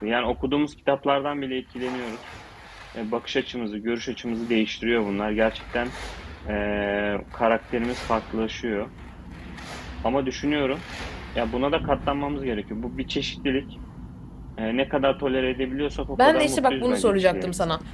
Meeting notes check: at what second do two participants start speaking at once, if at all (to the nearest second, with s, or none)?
16 s